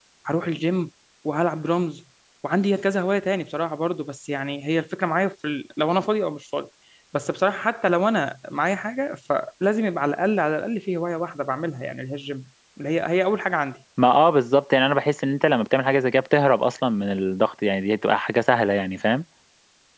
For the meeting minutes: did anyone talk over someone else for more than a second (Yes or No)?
No